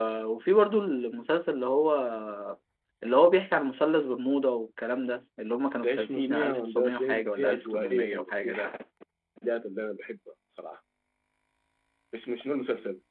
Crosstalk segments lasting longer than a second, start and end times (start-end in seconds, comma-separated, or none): 5.8-8.7